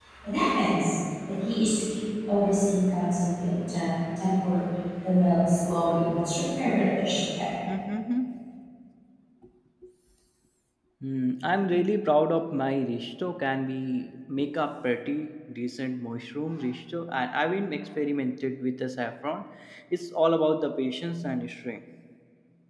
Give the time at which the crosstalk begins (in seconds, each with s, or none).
none